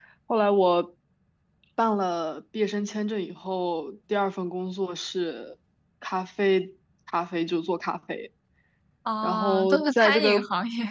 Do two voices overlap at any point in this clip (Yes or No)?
Yes